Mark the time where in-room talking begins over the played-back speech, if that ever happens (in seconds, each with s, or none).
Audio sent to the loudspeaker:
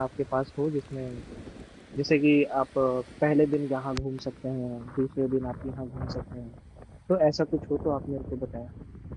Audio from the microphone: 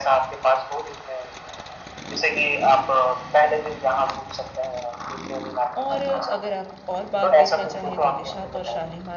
5.8 s